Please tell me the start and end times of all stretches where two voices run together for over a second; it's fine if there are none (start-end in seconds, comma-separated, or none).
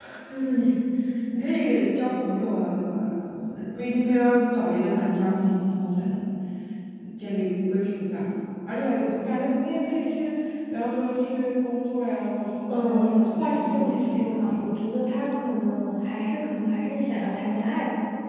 12.7-14.7